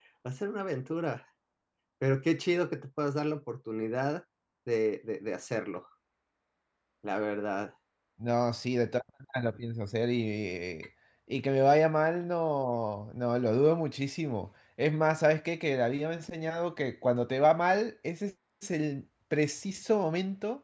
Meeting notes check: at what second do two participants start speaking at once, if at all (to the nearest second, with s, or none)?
none